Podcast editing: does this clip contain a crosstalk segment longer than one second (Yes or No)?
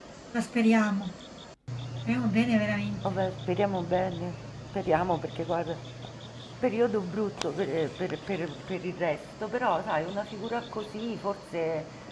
No